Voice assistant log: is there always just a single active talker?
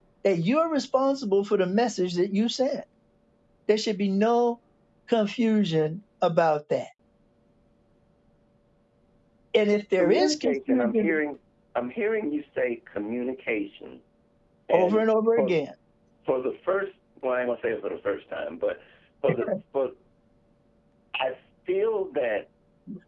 No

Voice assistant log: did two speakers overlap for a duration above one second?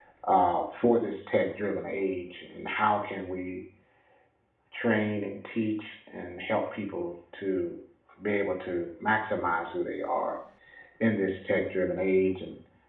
No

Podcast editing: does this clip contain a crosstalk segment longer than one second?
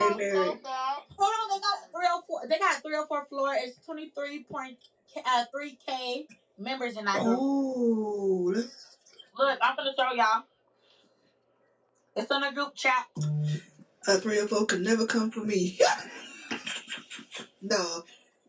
No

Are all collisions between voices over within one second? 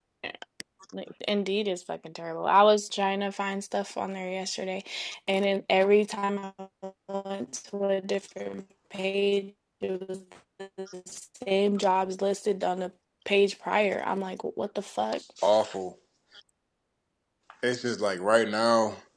Yes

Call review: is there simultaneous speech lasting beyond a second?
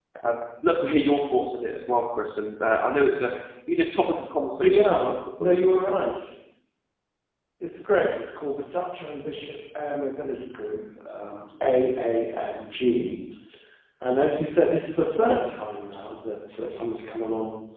No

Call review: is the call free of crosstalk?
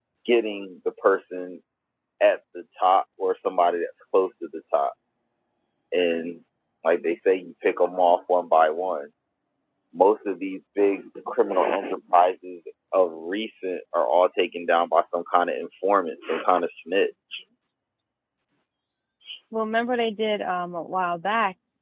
Yes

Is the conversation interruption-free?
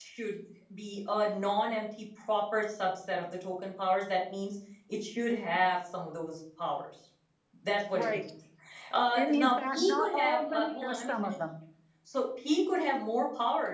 No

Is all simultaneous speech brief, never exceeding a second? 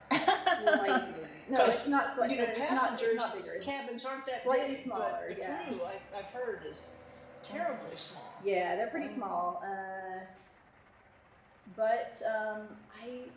No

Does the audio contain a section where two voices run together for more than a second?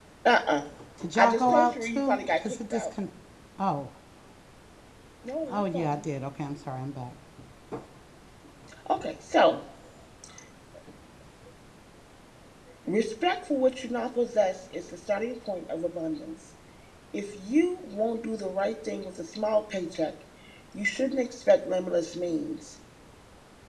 Yes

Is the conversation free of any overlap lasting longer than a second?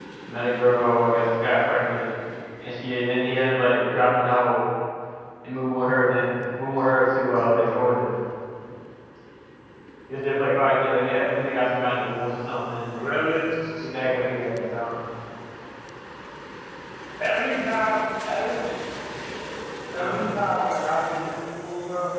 Yes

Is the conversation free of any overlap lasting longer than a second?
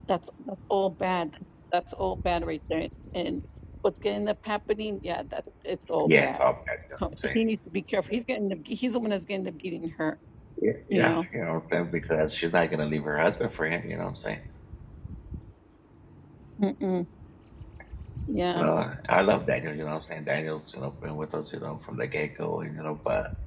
Yes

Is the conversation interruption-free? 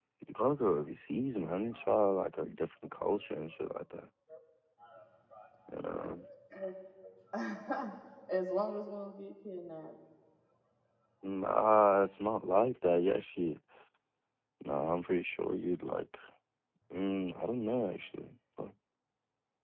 Yes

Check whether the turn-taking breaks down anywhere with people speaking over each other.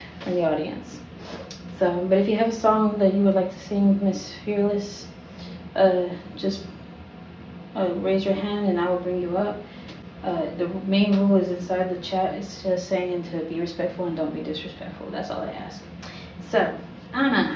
No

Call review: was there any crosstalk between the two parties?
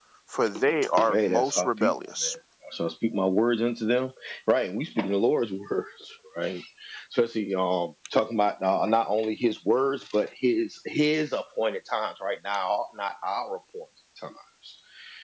Yes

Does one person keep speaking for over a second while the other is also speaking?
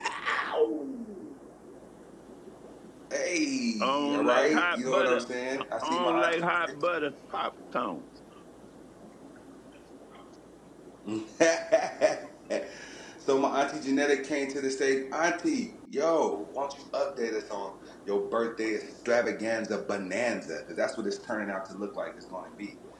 Yes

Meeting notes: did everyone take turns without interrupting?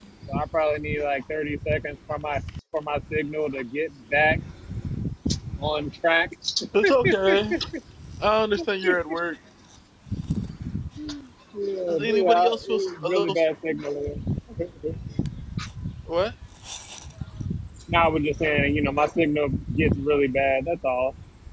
No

